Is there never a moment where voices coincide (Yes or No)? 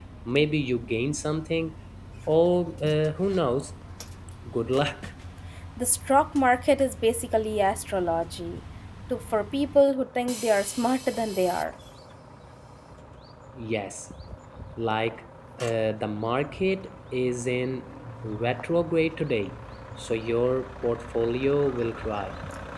Yes